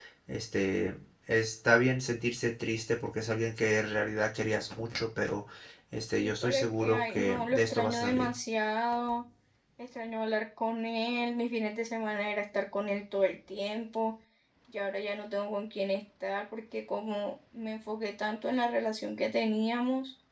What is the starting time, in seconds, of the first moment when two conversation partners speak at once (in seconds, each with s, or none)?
6.2 s